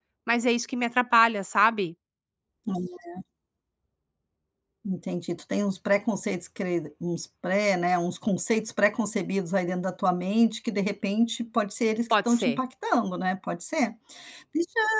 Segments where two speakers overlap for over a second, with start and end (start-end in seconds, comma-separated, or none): none